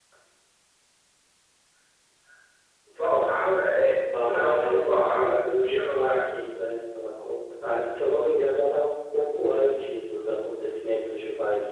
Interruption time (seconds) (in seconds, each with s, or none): 4.0 s